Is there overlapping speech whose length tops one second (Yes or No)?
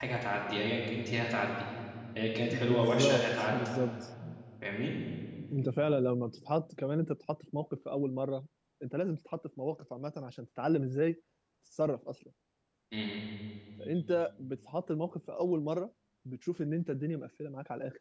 Yes